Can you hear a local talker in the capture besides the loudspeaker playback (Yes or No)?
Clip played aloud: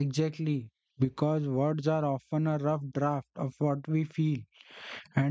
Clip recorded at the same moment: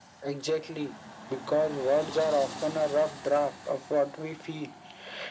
No